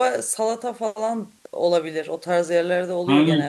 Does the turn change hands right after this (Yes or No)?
Yes